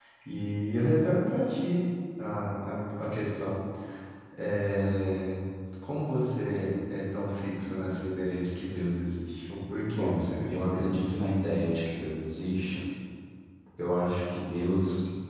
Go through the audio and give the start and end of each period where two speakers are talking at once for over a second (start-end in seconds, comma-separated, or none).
9.9-11.2